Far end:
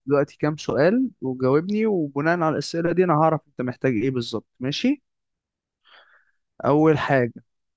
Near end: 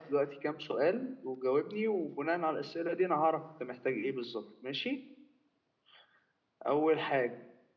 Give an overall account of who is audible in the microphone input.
echo only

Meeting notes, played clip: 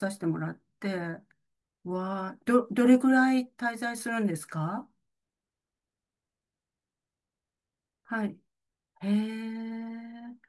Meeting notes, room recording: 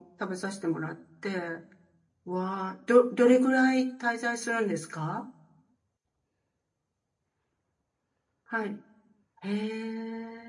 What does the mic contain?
echo only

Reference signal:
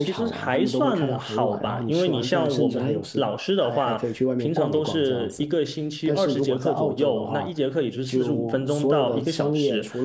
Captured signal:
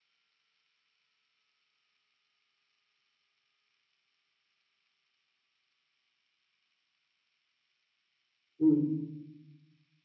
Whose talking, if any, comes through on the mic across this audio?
user only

